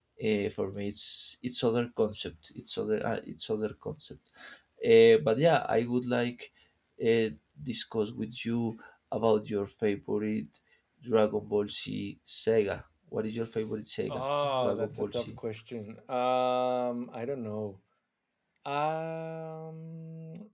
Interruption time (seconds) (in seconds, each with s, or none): 14.1 s